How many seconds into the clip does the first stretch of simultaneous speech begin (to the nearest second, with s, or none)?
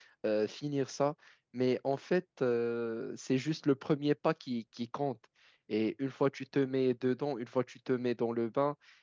none